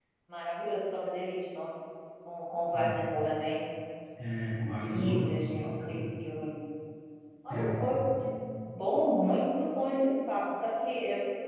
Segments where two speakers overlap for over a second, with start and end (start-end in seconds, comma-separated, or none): 4.7-5.9